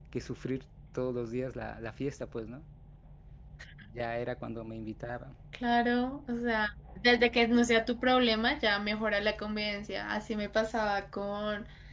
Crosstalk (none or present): none